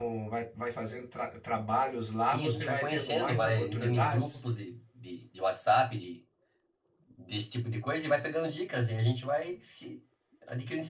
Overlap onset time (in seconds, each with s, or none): 2.2 s